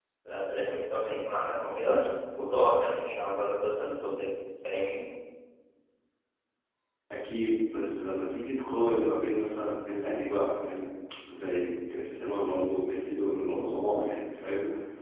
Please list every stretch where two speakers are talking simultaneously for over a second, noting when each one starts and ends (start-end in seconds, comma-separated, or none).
none